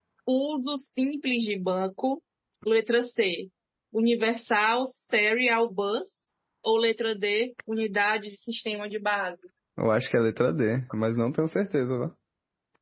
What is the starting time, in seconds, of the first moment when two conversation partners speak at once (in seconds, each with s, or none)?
none